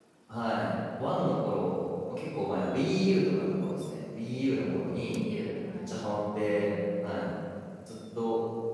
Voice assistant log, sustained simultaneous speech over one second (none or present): none